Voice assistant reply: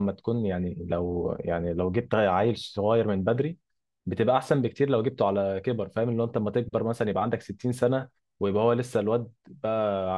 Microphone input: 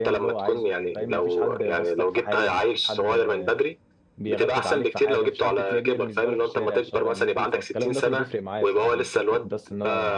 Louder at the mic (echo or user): echo